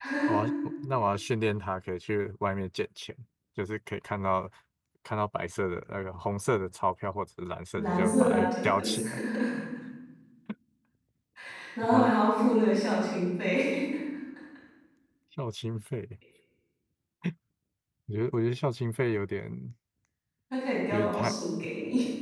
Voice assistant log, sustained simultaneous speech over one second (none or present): present